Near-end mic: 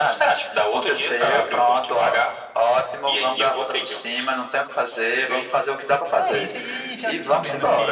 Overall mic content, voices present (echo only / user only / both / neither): both